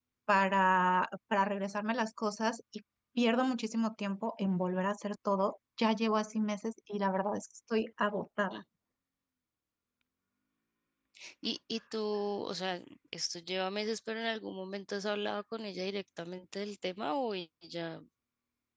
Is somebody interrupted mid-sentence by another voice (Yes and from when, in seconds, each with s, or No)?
No